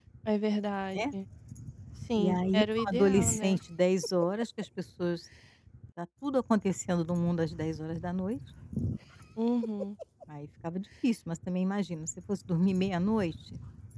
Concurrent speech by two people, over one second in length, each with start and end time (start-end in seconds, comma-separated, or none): 2.1-3.6